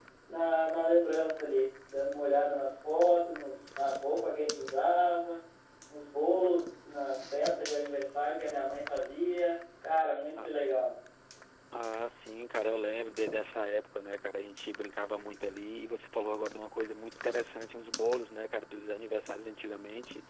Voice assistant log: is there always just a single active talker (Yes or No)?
Yes